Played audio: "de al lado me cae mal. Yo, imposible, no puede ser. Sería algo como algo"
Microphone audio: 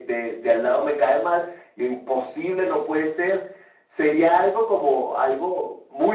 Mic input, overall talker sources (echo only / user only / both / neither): echo only